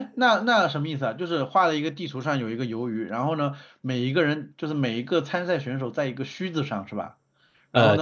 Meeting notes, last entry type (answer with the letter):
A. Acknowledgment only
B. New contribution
B